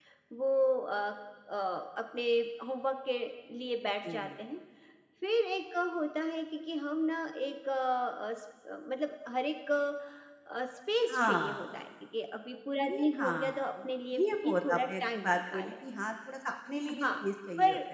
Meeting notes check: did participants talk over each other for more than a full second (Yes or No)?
Yes